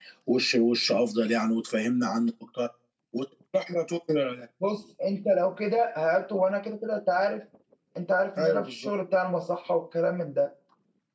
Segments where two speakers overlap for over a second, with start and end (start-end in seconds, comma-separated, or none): none